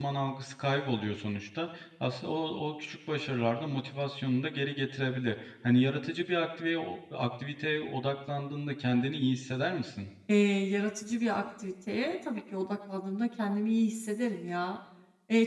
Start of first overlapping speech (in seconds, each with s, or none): none